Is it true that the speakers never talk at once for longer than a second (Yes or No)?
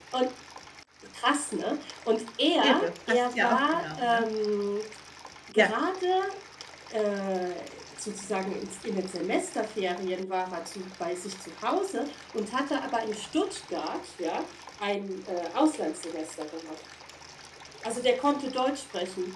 No